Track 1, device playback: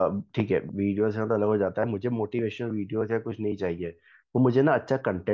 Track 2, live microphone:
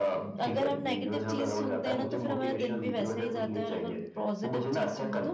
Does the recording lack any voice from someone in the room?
No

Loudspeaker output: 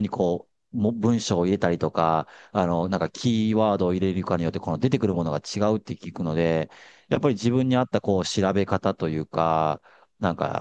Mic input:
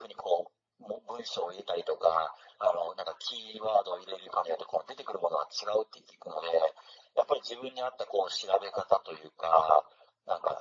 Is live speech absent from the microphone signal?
Yes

